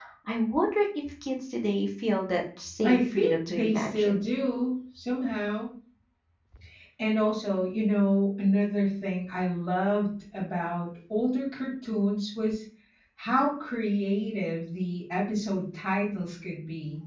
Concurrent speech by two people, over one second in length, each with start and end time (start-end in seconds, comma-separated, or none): 2.8-4.2